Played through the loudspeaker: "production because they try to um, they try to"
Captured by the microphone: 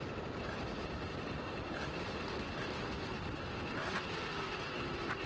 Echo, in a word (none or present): none